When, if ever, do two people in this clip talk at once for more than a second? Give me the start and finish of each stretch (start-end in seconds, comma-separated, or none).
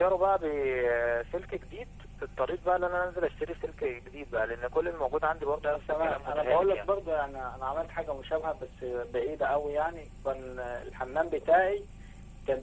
5.6-6.8